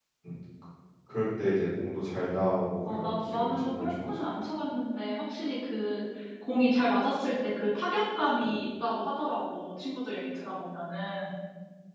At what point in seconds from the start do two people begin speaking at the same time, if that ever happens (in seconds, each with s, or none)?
2.9 s